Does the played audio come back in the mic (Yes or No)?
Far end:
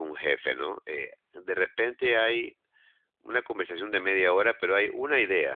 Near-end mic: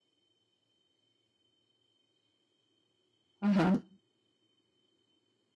No